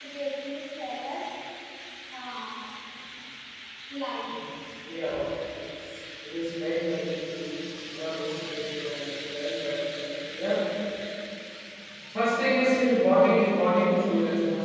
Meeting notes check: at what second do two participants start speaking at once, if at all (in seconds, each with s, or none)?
none